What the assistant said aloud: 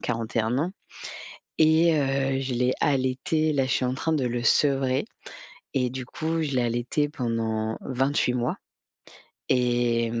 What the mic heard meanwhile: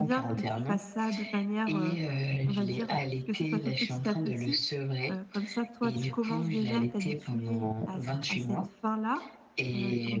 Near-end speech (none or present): present